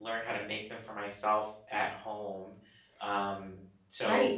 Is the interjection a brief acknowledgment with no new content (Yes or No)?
No